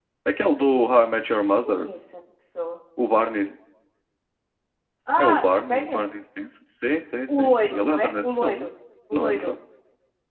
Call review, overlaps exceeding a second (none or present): present